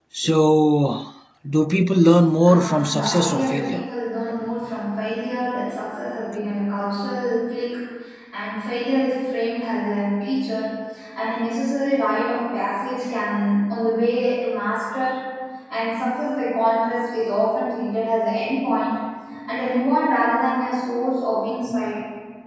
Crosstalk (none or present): present